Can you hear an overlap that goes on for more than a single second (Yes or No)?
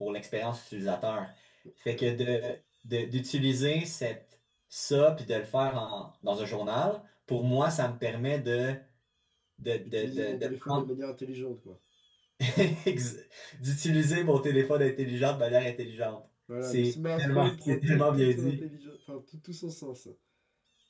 Yes